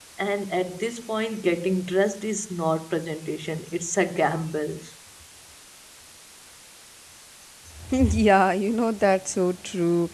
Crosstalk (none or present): none